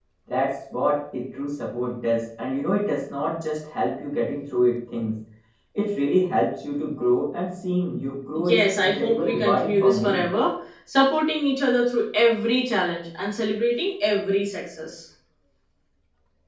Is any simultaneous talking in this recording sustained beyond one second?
Yes, from 8.3 s

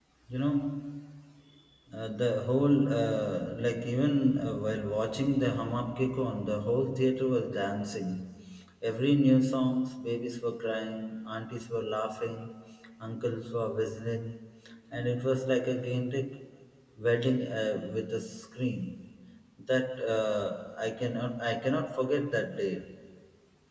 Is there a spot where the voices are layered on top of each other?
No

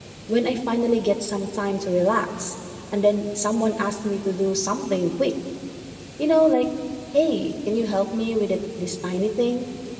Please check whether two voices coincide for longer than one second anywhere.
No

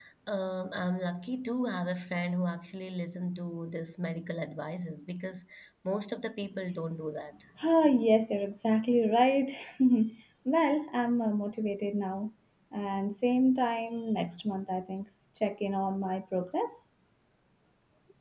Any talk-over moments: No

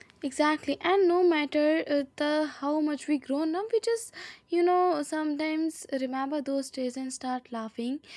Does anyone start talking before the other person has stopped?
No

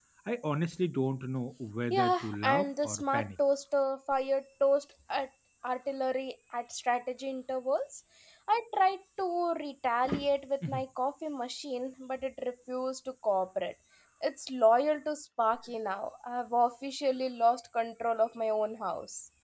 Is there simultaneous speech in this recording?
Yes, from 1.9 s

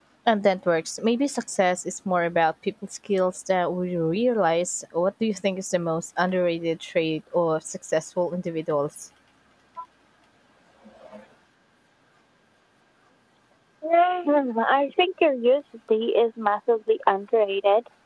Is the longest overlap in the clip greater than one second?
No

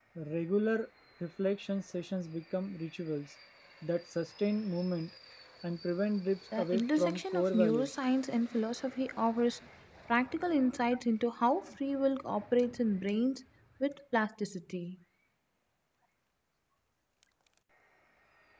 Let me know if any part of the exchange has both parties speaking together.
Yes, from 6.5 s

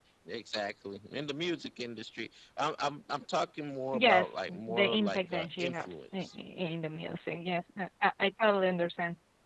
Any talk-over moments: Yes, from 3.9 s

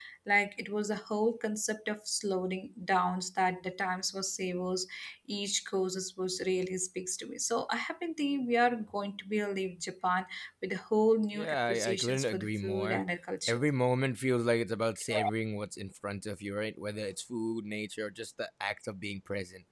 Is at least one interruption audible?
Yes, from 11.3 s

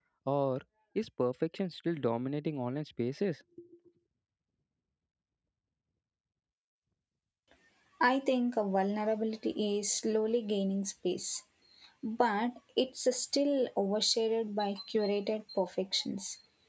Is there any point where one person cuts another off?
No

